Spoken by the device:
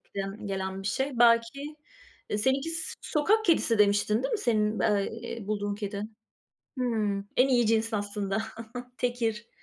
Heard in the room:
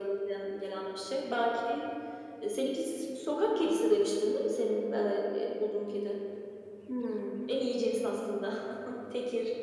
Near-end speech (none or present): none